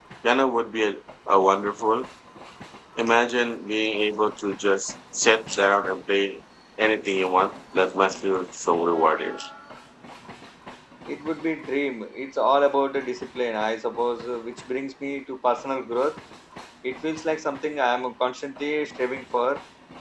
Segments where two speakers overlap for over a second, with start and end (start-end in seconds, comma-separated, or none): none